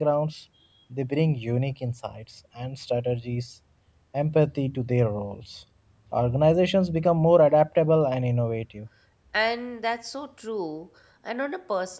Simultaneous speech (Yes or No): No